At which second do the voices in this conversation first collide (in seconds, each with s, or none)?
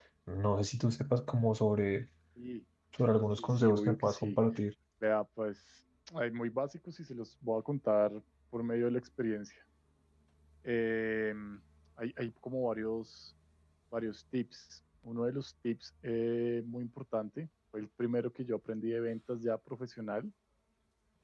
3.0 s